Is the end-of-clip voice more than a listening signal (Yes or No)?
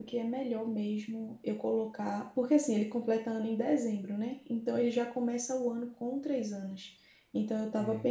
No